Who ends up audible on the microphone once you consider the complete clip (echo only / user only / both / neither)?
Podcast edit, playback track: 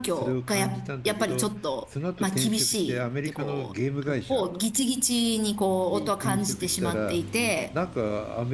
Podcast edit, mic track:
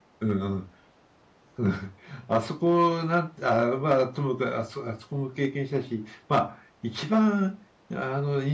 user only